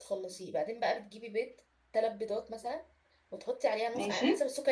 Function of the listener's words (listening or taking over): listening